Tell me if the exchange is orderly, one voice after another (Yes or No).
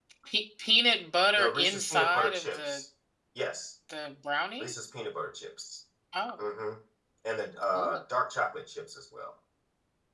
No